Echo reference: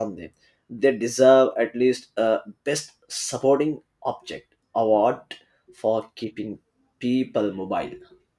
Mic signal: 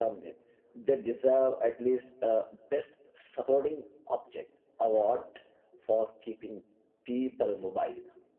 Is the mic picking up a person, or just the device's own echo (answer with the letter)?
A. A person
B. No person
B